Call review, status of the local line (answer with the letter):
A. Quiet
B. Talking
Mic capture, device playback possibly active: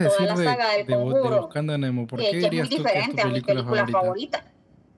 B